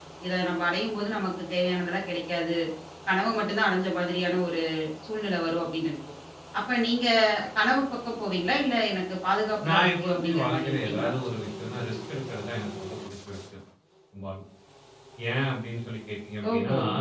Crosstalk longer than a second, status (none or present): present